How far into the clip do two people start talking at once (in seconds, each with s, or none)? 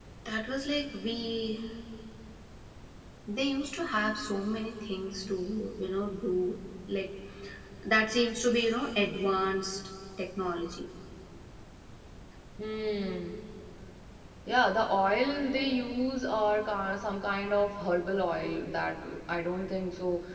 none